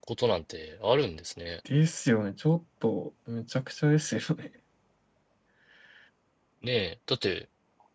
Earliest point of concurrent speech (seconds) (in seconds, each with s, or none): none